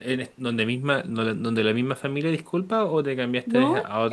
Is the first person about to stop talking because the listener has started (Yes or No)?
Yes